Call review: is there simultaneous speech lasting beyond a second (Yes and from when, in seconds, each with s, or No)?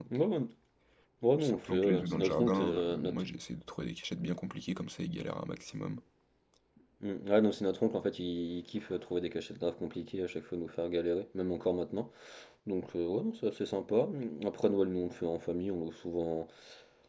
Yes, from 1.4 s